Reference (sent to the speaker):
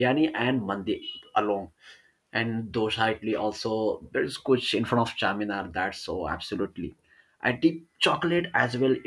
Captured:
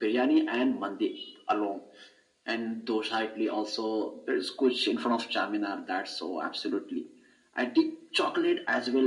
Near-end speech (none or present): none